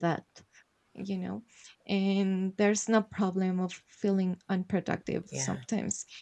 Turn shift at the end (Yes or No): No